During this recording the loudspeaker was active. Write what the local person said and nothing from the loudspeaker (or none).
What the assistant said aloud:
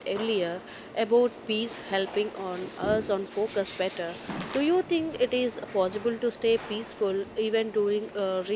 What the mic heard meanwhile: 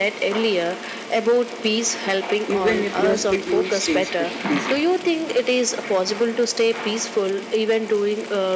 even if your schedule stays bit busy.